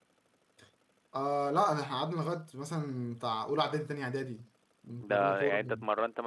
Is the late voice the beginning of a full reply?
Yes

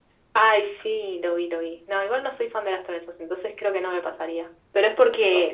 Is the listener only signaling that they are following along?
Yes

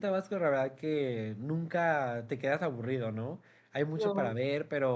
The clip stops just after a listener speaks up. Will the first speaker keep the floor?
Yes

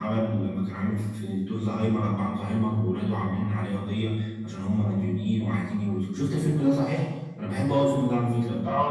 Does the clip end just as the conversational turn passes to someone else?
Yes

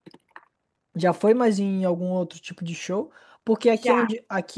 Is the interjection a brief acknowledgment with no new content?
Yes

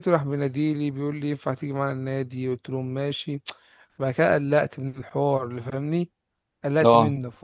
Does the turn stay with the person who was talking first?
Yes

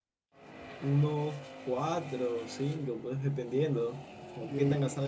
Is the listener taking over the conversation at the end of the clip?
No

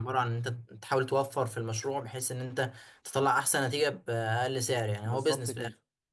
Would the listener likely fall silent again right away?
No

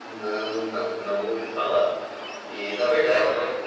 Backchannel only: Yes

